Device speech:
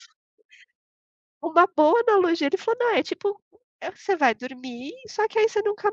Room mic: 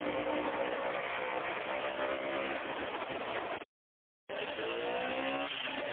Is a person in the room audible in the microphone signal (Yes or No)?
No